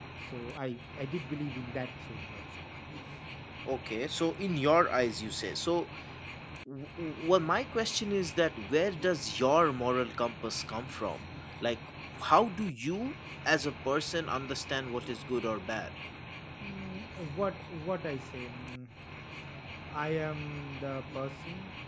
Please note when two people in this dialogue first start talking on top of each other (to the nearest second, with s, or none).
none